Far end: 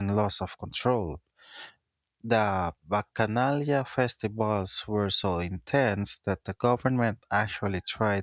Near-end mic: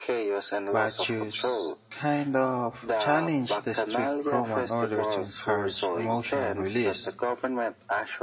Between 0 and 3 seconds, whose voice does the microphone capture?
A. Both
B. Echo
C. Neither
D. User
A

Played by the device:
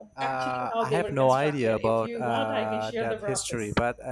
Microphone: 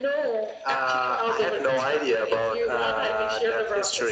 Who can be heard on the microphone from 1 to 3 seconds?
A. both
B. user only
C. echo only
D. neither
C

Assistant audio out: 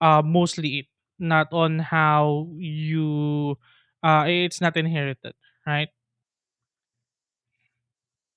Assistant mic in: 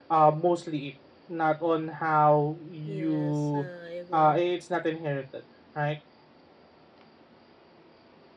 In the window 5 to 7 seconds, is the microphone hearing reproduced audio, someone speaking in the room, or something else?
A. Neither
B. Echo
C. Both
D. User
B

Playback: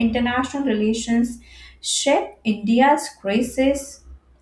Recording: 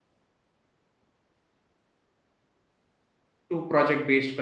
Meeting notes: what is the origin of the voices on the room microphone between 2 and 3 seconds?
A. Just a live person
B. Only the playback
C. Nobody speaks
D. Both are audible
C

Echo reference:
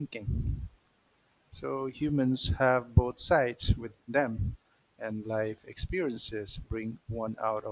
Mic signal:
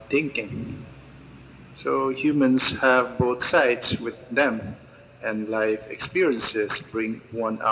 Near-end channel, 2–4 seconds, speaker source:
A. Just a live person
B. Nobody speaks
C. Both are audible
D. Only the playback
D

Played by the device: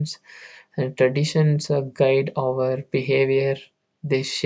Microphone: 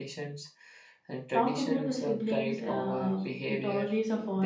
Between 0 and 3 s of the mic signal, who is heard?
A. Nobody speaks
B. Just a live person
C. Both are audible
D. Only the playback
C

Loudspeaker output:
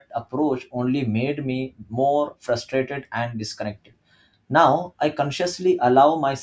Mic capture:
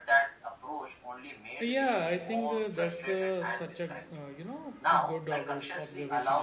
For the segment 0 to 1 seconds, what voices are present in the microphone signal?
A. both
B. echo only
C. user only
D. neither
B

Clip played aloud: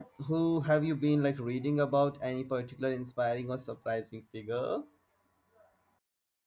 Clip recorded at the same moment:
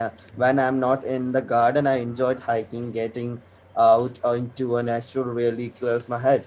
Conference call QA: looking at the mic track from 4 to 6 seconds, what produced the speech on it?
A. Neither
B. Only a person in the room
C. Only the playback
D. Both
B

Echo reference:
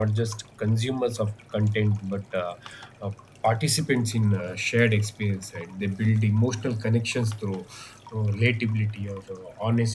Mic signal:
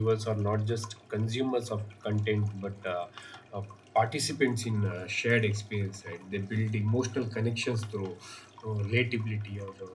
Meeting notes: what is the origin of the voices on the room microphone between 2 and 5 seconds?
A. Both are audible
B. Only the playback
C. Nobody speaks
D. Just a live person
B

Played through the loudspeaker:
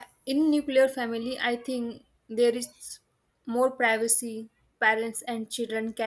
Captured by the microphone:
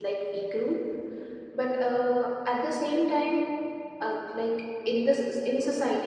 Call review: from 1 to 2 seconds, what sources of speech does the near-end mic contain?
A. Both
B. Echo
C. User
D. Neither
C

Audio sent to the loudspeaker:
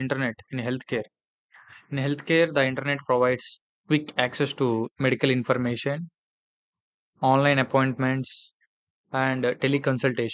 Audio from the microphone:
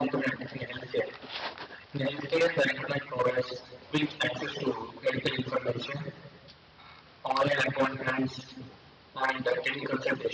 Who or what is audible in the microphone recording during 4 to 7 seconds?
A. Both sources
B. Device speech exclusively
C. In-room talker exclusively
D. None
B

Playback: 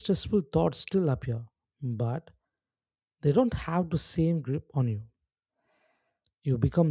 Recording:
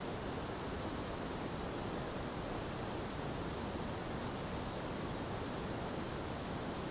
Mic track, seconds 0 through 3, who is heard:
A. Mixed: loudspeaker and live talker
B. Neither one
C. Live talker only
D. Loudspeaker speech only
B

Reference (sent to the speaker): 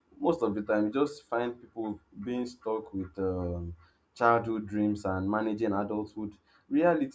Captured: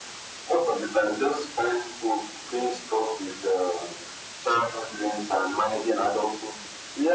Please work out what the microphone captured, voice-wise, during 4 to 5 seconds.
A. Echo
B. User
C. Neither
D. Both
A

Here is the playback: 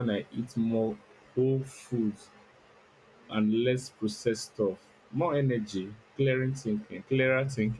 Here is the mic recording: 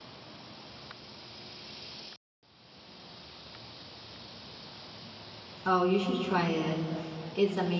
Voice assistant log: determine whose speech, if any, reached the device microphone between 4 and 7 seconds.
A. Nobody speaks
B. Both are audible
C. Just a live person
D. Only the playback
C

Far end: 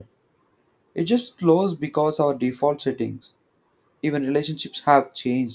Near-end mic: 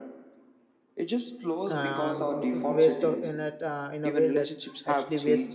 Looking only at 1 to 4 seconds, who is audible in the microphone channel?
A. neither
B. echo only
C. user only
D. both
D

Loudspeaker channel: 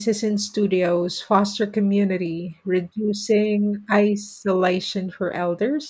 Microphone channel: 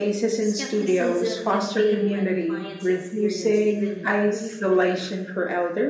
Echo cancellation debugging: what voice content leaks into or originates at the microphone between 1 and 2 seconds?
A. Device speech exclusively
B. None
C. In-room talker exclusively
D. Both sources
D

